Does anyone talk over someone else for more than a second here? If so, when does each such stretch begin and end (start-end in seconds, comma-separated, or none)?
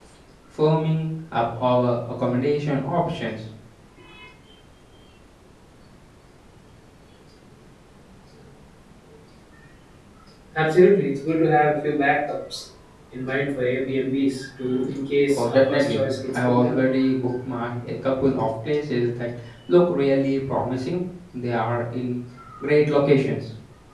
15.4-16.8